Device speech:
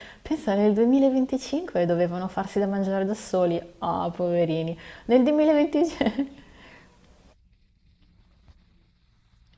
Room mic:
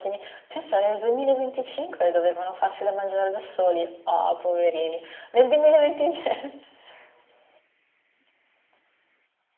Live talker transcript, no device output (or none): none